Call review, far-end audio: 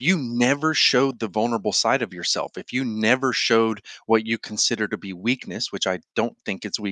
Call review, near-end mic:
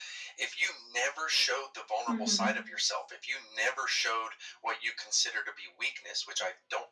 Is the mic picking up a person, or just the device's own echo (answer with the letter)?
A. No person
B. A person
B